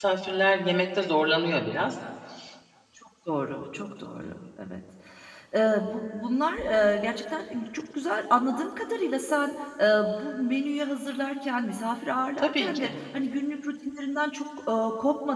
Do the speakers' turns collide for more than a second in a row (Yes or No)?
No